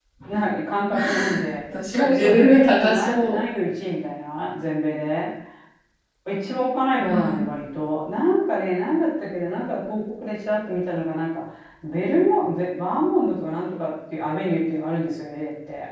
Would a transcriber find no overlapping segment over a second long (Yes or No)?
No